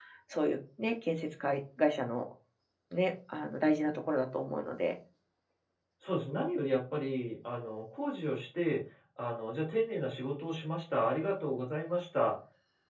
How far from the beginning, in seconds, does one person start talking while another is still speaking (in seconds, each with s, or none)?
none